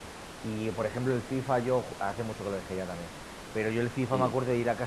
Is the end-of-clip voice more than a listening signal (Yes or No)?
No